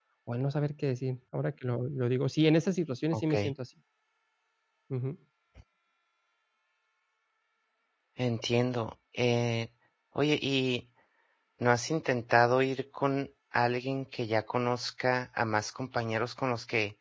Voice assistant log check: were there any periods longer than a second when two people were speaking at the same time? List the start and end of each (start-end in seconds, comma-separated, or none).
none